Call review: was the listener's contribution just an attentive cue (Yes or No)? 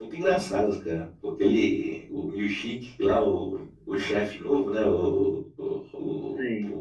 Yes